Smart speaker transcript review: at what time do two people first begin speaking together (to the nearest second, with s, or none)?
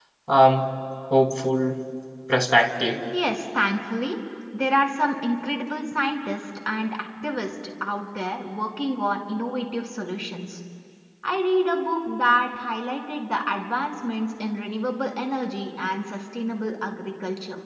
none